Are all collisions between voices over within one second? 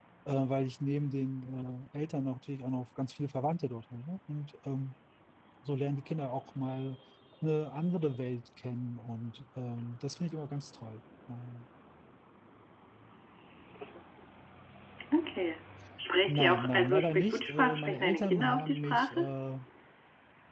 No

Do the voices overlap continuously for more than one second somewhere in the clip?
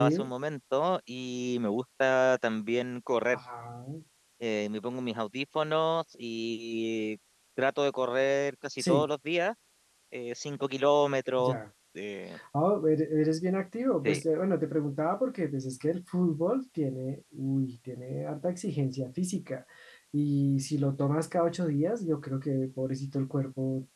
No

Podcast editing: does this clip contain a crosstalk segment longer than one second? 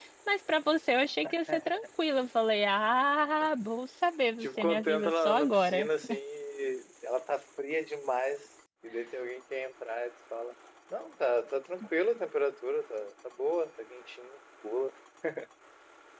Yes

